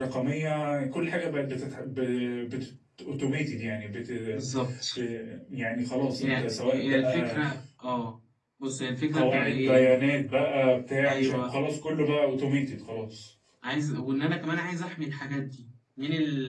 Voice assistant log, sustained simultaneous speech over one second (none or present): present